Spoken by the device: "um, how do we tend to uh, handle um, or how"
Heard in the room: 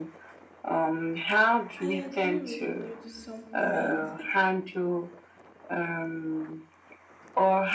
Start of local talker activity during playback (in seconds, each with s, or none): 1.8 s